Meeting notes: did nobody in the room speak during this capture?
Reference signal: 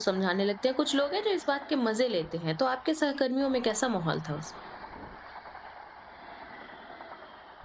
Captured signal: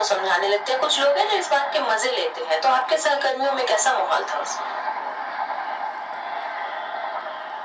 Yes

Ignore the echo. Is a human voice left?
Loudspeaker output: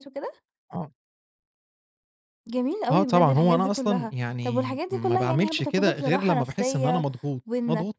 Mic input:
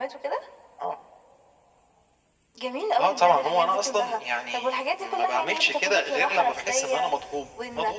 No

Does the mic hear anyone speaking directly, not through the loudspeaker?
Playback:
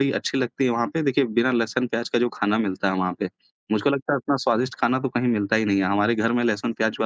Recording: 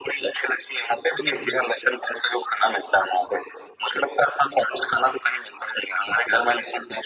Yes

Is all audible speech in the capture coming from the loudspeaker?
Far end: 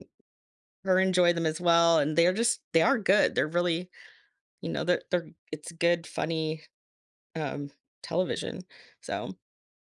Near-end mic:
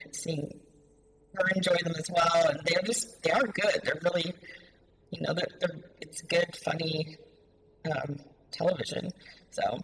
Yes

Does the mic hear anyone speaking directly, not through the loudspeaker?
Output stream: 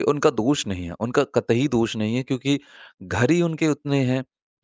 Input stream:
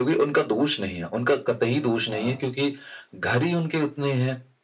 Yes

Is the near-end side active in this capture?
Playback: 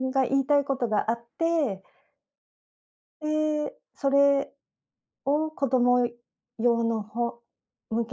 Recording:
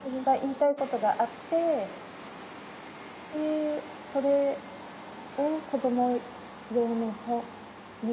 No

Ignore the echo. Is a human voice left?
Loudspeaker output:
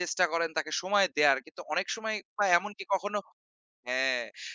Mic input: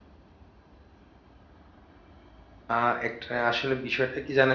Yes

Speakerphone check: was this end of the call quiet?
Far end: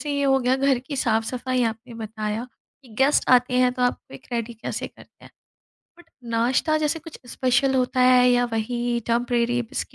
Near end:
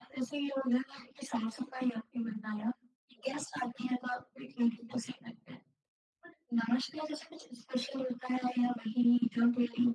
Yes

